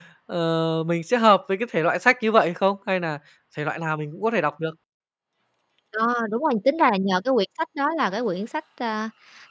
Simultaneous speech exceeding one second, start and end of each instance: none

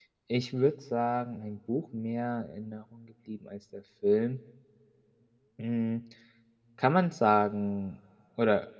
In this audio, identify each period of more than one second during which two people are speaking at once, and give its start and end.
none

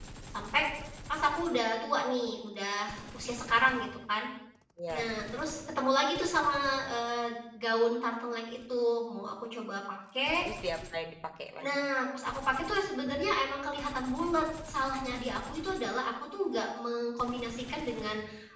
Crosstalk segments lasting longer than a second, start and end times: none

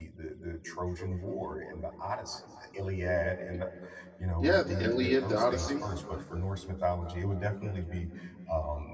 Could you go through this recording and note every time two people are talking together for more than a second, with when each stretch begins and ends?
4.4-5.8

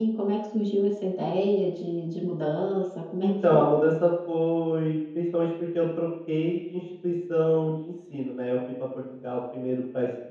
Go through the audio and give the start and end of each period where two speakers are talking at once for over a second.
none

